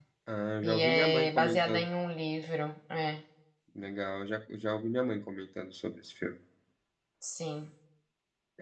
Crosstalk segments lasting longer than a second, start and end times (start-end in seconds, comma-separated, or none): 0.6-1.9